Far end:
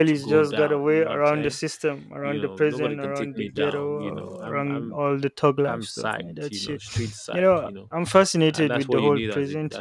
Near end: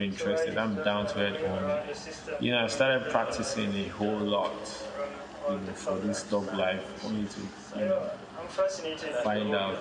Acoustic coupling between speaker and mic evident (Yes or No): Yes